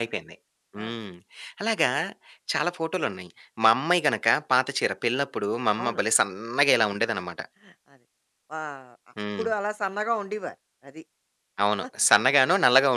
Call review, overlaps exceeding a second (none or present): none